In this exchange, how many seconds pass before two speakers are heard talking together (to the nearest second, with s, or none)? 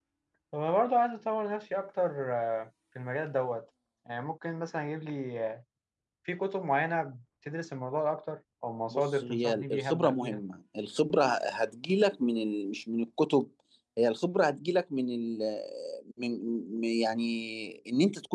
9 s